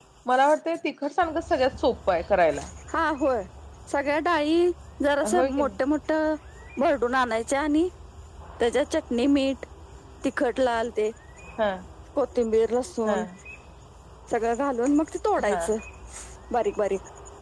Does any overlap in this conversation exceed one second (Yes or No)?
No